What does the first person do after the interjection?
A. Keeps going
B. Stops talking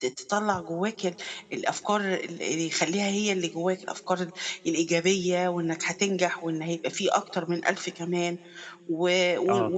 A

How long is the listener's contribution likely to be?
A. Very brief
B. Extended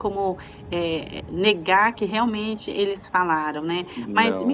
A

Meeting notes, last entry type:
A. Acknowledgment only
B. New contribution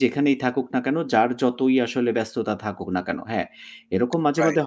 A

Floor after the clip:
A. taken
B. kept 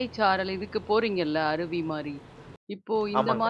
B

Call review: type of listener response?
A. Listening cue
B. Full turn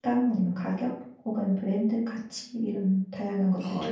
B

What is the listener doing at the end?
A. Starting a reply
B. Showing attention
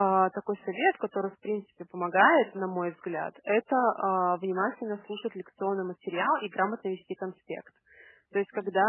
B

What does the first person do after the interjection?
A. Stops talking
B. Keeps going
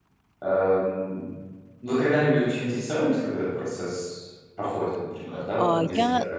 A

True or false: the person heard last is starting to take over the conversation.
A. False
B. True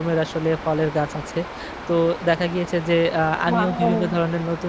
A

